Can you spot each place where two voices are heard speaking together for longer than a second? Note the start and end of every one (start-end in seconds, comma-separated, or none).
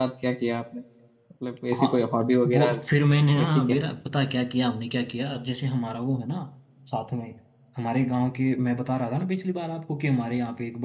none